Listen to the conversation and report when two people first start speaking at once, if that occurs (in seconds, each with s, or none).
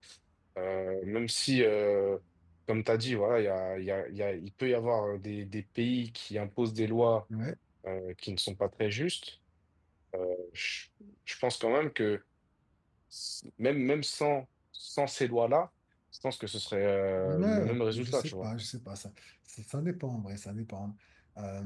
17.2 s